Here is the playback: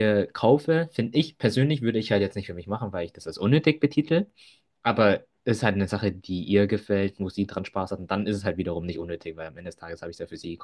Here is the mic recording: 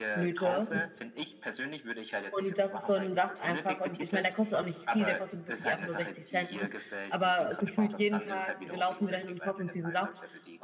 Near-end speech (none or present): present